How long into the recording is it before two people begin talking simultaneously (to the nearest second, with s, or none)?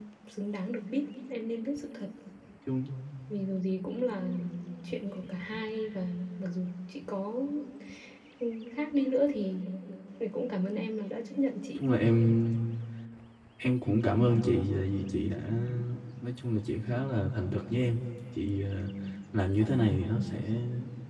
none